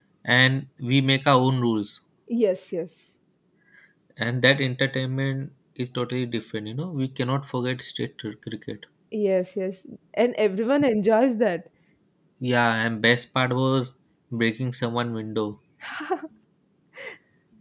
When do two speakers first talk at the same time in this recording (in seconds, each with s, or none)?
none